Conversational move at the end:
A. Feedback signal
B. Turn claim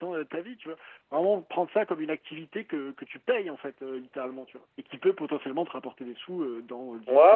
B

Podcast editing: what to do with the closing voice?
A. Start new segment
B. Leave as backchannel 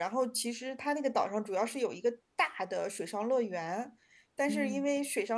B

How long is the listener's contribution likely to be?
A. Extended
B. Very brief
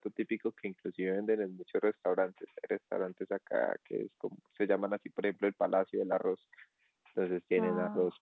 B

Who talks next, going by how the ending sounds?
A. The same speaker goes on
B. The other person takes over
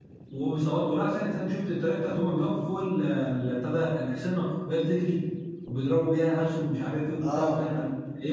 A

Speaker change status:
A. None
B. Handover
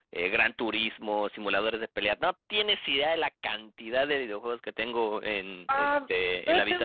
B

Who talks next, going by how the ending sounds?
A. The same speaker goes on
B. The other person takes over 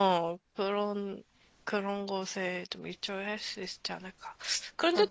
A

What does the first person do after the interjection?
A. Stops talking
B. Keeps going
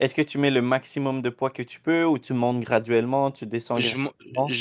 A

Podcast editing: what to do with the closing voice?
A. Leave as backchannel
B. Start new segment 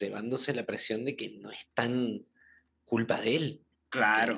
A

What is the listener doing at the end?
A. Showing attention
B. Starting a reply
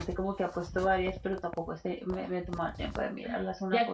B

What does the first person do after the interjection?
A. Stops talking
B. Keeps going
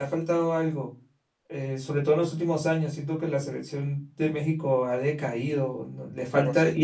B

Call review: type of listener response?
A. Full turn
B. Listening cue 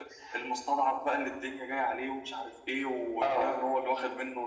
B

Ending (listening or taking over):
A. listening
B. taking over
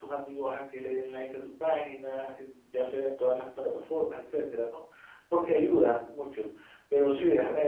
A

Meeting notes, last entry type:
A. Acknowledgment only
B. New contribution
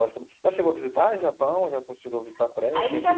B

